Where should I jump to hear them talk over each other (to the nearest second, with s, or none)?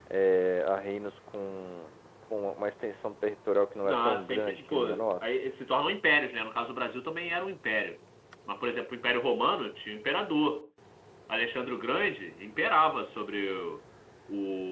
4 s